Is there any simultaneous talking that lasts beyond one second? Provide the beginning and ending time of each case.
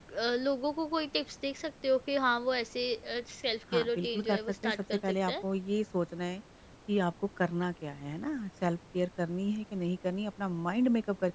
3.7-5.3

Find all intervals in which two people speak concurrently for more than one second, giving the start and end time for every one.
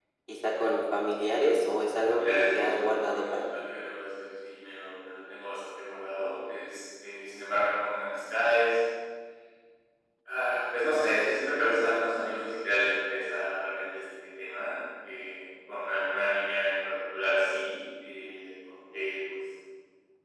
2.0-3.6

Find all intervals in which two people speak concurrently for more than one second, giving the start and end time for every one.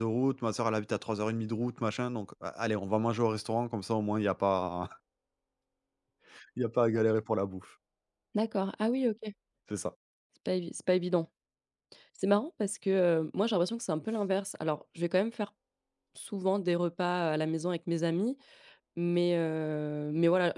none

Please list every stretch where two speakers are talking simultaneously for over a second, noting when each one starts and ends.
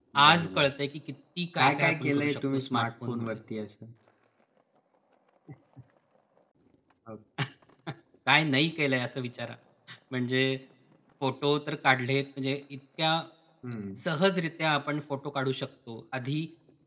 1.6-3.4

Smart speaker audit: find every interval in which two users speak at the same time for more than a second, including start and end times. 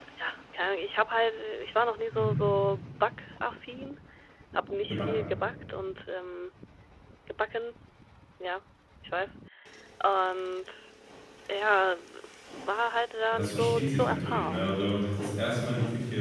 13.3-14.8

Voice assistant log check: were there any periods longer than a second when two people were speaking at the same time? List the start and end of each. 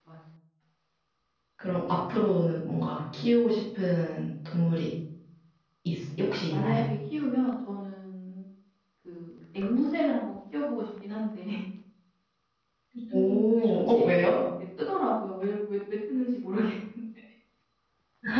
13.1-14.3

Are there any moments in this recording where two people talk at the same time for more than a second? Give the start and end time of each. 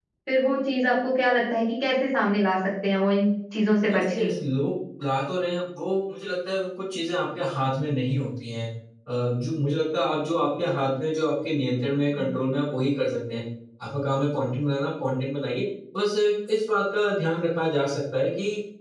none

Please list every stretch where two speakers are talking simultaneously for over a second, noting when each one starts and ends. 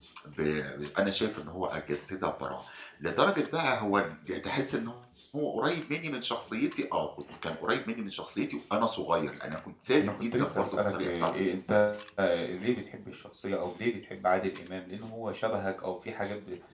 10.0-11.6

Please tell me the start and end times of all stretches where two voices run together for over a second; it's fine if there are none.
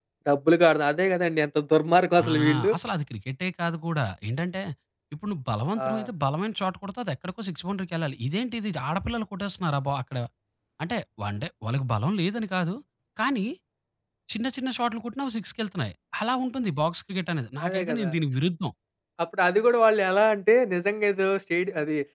none

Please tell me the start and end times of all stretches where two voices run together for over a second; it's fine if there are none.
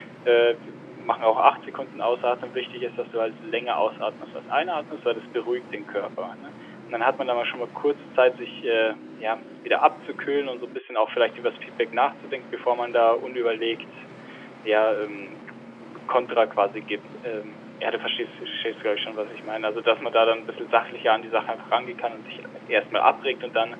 none

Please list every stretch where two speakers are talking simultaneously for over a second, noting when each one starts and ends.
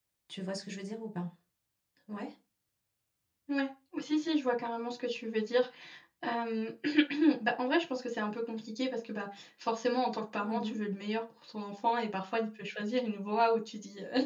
none

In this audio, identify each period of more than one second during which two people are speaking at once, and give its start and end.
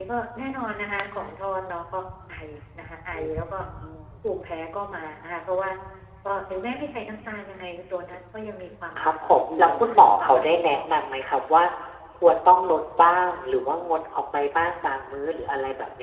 9.0-10.9

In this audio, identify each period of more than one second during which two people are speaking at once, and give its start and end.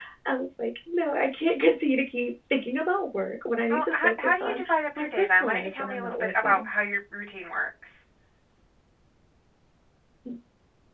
3.7-6.7

